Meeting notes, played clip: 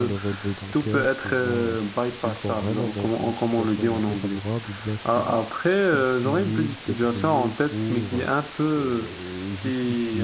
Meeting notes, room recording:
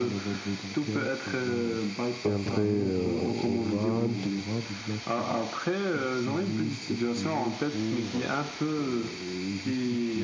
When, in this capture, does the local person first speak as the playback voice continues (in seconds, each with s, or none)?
2.2 s